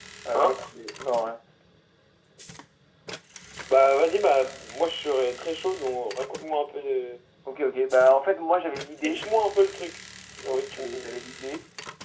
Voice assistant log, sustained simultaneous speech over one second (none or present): none